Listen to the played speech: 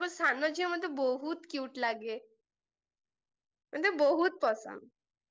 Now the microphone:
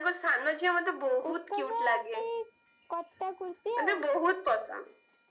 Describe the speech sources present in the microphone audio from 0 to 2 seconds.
both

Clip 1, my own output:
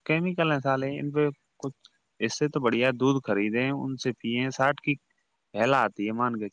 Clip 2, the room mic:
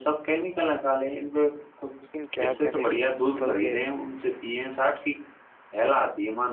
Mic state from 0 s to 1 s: echo only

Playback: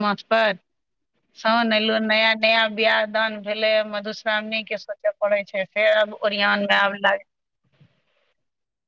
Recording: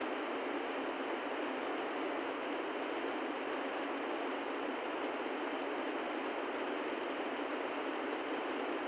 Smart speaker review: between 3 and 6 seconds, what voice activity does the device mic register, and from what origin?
neither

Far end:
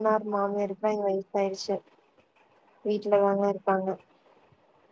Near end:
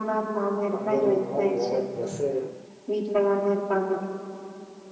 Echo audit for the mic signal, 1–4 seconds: both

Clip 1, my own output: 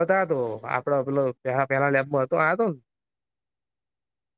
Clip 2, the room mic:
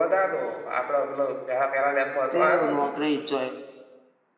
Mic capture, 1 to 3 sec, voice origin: both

